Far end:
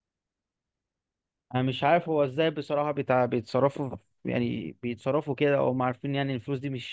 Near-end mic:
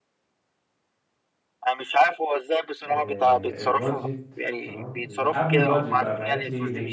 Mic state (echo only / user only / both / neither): both